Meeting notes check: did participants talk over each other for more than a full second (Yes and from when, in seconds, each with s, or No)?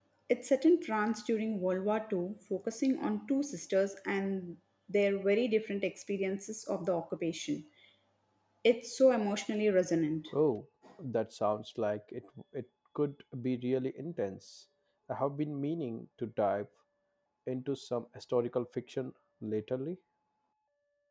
No